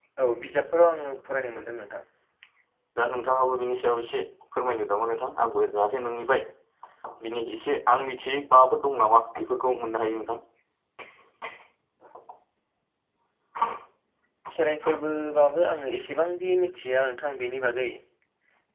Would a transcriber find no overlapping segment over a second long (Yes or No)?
Yes